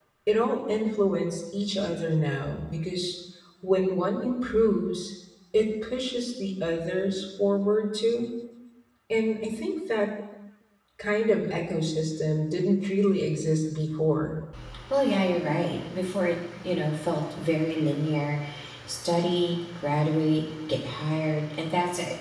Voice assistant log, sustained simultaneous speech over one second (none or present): none